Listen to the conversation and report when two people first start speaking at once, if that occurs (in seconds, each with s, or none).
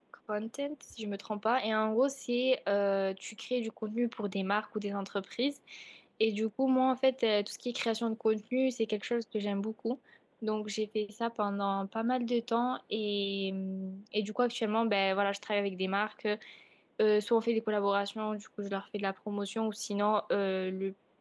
none